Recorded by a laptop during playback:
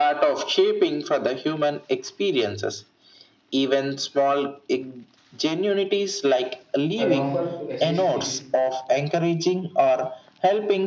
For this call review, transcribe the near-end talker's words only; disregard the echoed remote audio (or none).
I offer to assist if